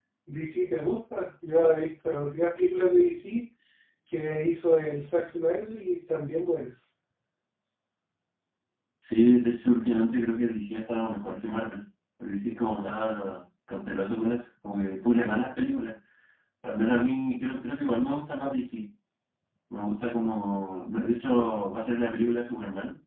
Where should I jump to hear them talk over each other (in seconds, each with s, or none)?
none